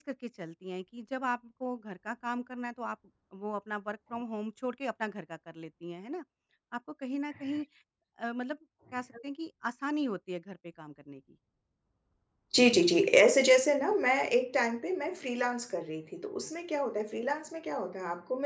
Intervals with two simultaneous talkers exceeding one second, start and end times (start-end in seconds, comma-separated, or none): none